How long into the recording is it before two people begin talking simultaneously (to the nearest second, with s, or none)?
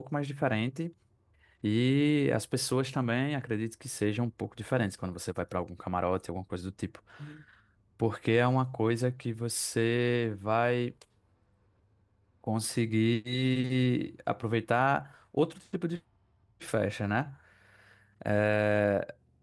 none